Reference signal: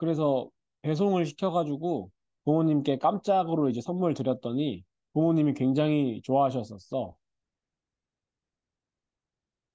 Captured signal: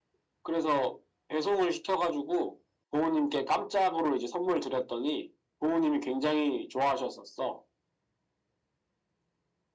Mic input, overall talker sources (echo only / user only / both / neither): echo only